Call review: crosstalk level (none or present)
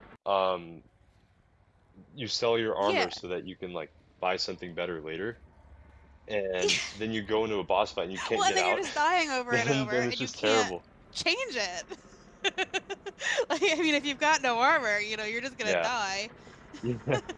present